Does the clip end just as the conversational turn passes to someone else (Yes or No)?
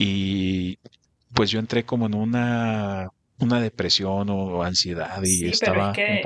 Yes